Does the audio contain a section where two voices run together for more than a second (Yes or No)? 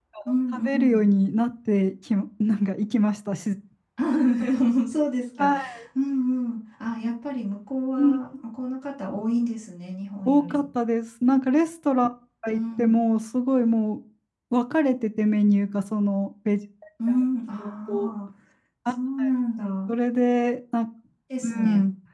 No